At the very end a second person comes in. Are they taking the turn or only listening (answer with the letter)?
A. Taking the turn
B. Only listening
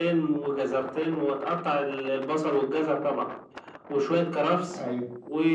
B